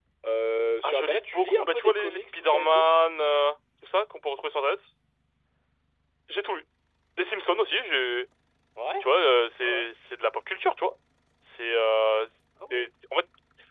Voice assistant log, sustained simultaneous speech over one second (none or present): present